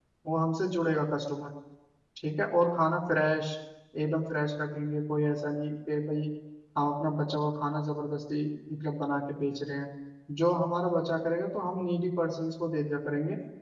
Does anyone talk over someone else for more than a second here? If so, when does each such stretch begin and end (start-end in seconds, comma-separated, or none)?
none